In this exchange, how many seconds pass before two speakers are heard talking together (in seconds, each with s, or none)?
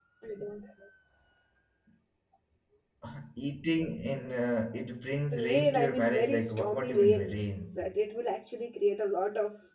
5.3 s